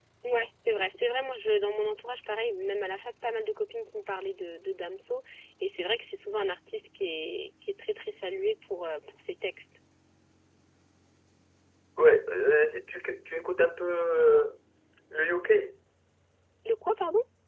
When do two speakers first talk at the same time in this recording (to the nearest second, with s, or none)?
none